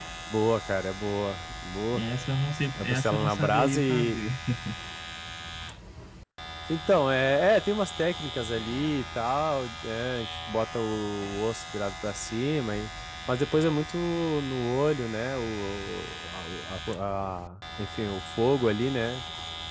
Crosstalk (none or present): present